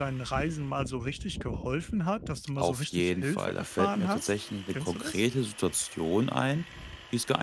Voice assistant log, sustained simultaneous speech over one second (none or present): present